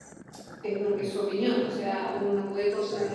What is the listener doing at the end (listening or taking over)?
listening